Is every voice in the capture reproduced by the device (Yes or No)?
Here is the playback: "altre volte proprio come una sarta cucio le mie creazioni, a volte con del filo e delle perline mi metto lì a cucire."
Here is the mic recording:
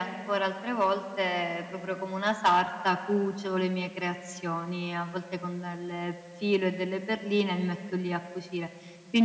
Yes